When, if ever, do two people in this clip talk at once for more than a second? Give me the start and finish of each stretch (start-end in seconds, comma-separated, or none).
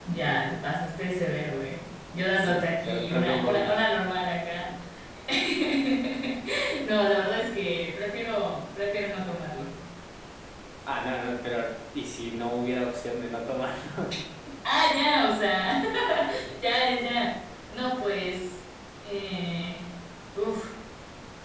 2.4-3.7